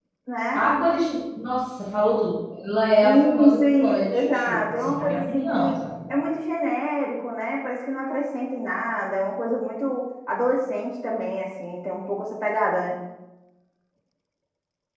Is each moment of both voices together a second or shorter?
No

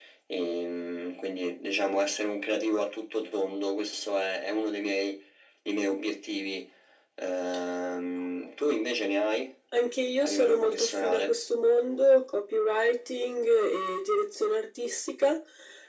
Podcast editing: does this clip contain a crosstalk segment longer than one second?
Yes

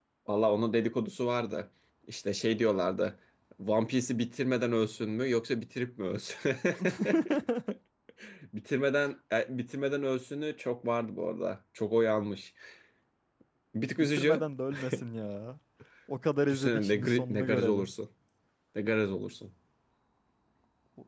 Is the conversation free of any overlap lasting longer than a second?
No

